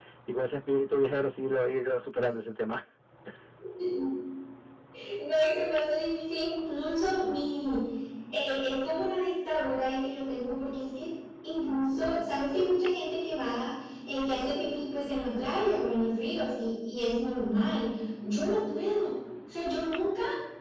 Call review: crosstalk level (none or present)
none